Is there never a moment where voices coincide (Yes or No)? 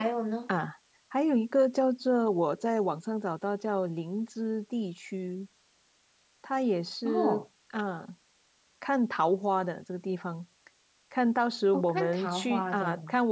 No